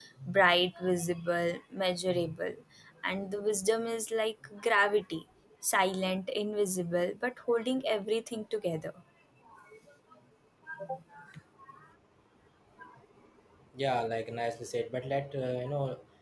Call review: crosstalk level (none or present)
none